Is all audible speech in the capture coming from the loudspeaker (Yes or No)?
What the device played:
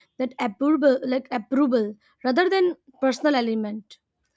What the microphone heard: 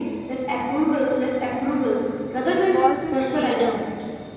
No